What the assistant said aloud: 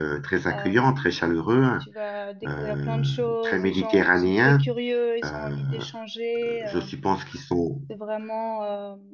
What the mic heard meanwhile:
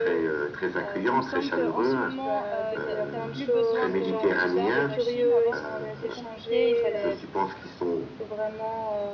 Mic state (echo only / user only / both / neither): both